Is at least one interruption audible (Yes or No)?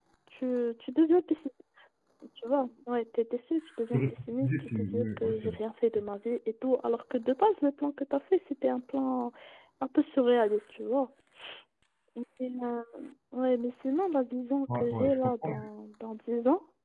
Yes